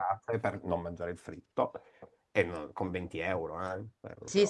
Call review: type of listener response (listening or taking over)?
taking over